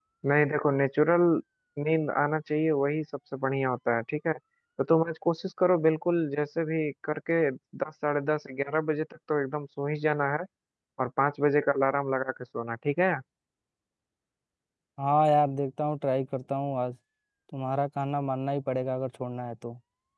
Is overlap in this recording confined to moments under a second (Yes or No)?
Yes